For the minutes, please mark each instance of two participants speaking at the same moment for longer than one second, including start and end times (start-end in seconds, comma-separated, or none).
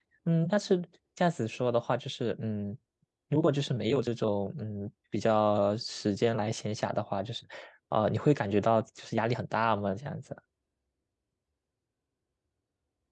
none